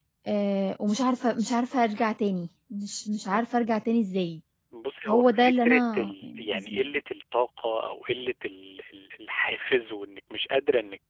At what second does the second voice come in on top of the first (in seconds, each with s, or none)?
5.1 s